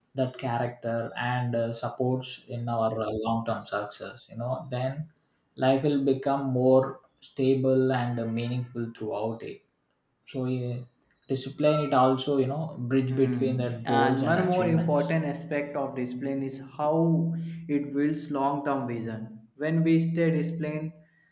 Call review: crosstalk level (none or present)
present